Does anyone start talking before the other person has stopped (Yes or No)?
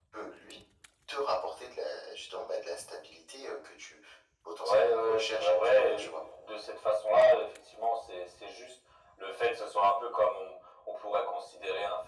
Yes